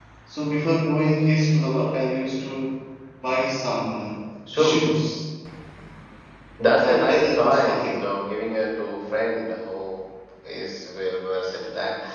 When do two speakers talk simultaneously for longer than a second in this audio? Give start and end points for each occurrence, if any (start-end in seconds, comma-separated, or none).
6.8-8.1